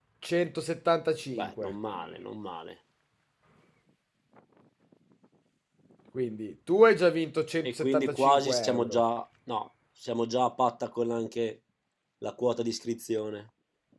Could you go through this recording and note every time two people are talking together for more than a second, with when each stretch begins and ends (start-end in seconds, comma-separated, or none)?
7.6-9.0